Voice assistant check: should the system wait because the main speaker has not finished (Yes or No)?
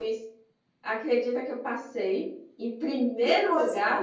No